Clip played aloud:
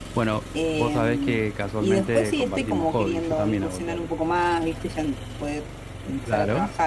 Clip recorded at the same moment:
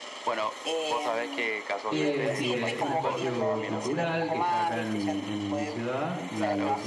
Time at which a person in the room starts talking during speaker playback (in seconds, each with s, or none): 1.9 s